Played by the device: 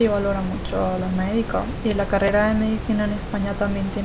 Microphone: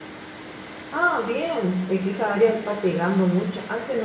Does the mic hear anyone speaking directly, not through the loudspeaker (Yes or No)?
Yes